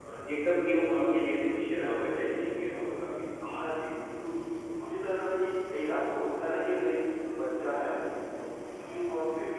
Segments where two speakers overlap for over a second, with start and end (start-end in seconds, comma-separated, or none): none